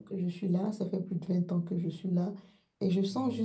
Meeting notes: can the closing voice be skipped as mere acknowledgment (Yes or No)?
Yes